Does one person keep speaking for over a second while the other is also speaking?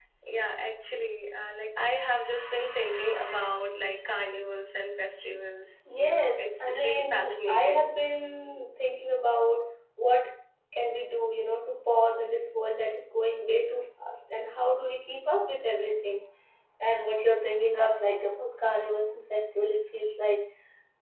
Yes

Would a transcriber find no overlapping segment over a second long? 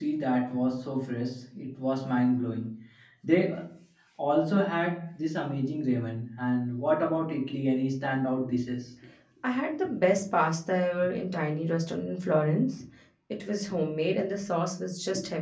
Yes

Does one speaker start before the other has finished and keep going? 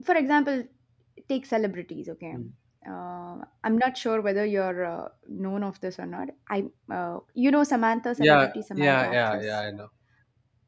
Yes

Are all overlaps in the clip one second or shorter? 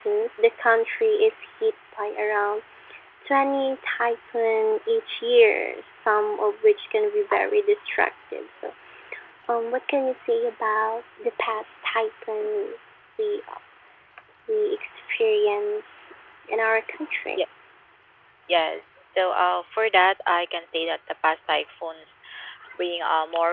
Yes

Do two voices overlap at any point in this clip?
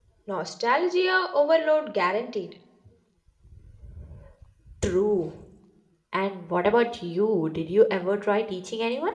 No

